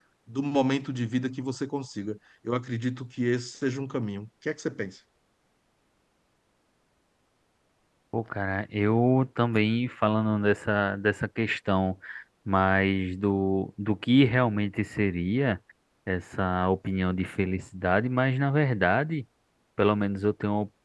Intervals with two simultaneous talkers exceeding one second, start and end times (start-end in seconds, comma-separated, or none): none